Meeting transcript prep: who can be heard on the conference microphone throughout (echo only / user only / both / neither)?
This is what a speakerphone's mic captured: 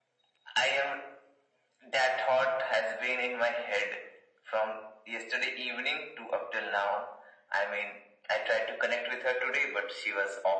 echo only